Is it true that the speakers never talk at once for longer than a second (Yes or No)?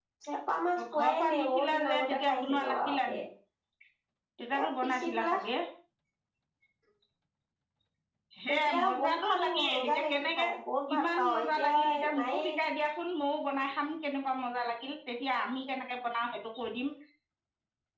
No